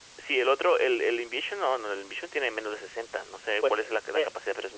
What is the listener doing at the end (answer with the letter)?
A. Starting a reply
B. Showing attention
A